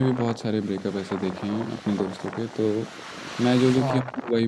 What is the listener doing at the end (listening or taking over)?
listening